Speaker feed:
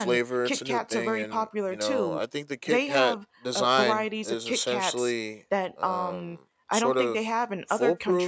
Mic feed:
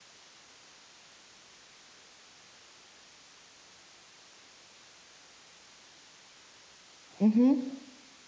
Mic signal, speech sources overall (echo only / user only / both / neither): user only